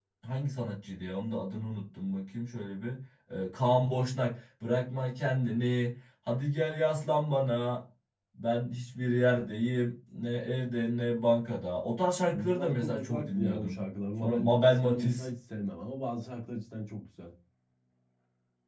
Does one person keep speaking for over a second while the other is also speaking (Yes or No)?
Yes